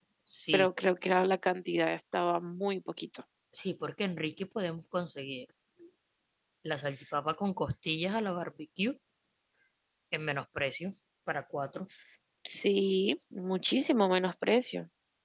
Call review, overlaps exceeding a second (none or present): none